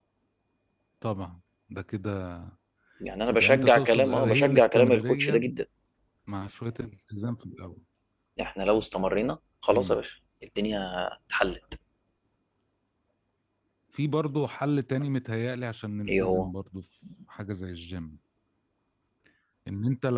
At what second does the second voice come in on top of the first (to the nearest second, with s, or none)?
3 s